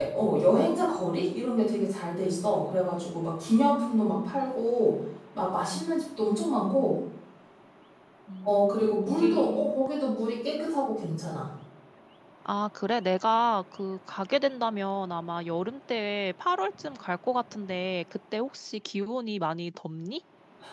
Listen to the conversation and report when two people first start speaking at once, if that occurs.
8.4 s

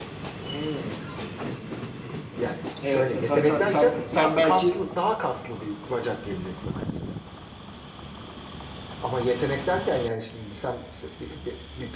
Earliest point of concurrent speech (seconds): 2.8 s

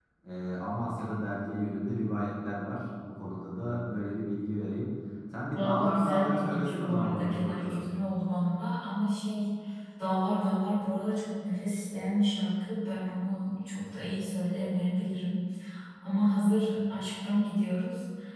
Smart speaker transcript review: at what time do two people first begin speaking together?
5.5 s

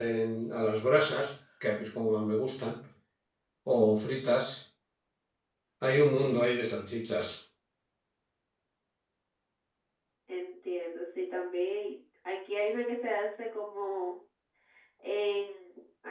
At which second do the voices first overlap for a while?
none

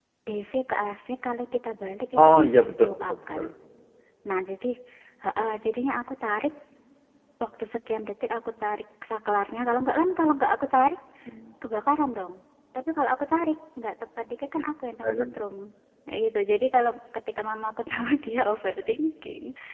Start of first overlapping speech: 2.2 s

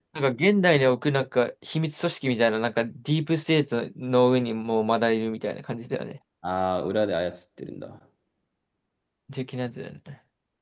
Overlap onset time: none

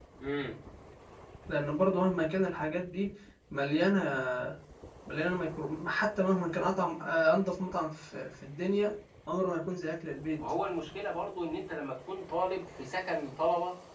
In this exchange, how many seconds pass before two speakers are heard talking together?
none

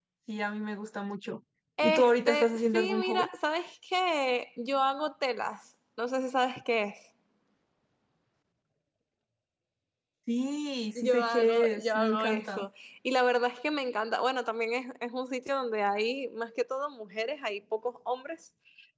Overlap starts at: 1.8 s

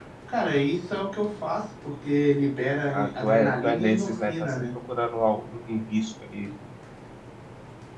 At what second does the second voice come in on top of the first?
2.9 s

